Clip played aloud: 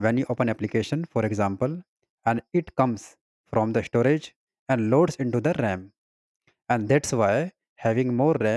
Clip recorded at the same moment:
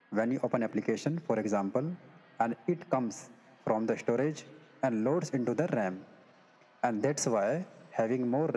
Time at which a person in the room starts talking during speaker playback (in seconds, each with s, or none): none